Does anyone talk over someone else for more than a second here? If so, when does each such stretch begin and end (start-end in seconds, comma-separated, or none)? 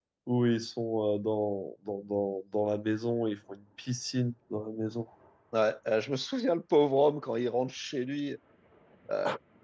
none